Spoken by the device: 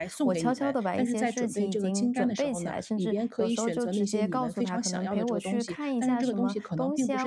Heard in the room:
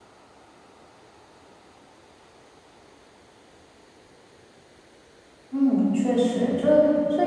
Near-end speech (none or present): present